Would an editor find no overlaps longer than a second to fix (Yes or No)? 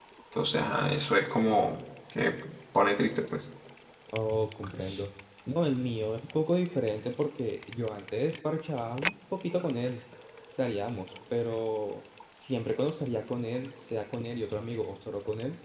Yes